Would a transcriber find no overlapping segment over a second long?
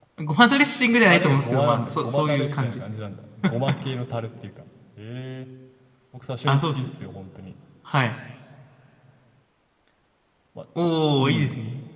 No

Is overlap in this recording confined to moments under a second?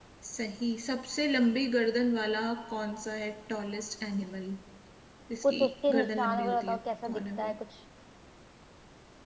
No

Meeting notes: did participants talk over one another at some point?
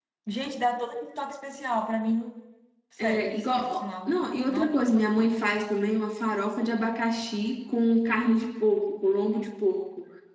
Yes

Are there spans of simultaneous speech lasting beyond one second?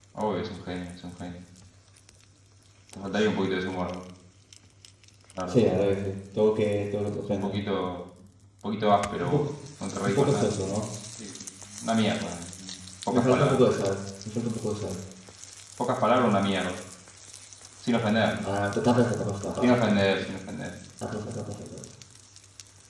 No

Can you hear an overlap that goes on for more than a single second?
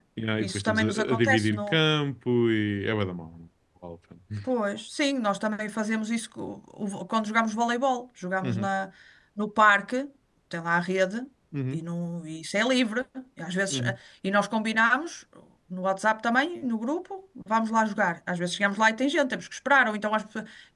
Yes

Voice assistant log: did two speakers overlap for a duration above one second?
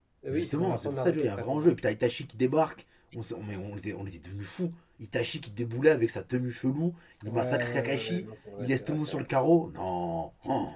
Yes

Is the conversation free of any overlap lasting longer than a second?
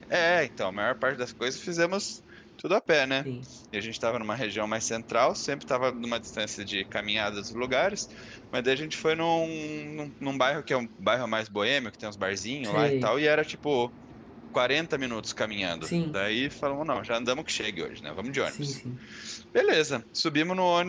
Yes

